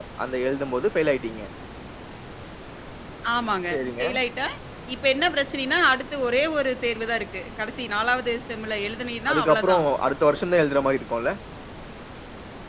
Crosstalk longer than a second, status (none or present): none